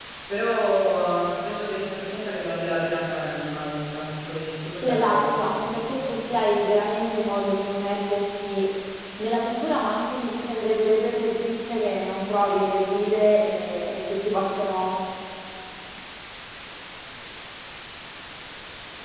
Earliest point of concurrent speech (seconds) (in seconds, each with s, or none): 4.7 s